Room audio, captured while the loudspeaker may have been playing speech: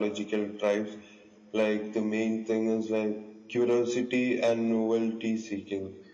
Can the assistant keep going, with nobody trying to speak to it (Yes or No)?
Yes